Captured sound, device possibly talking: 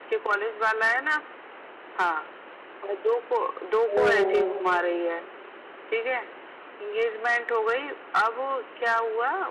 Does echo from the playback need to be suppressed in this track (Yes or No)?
Yes